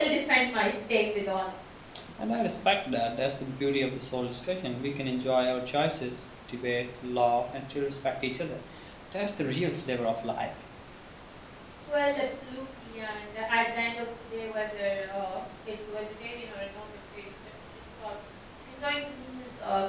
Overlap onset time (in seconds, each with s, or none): none